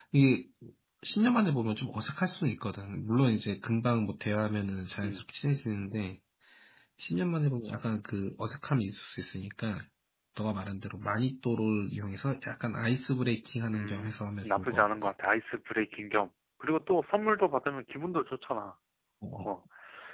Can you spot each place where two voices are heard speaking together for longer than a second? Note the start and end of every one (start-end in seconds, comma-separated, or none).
13.7-15.1